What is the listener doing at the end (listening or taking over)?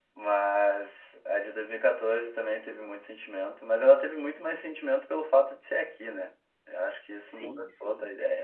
taking over